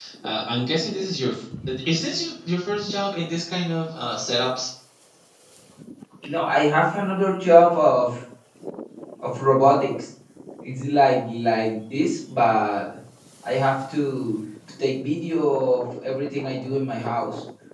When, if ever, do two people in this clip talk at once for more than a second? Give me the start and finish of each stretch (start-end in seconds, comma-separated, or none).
none